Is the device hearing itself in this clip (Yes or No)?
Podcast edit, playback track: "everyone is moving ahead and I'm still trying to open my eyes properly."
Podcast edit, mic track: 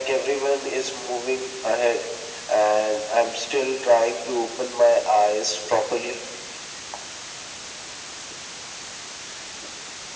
Yes